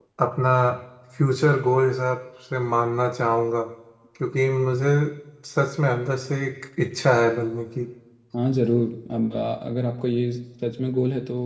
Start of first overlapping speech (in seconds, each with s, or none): none